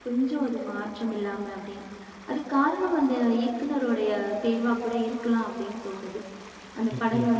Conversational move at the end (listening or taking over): listening